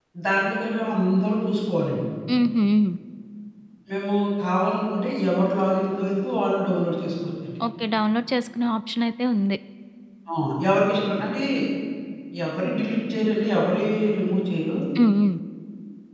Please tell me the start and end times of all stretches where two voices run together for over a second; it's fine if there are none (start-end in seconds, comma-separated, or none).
none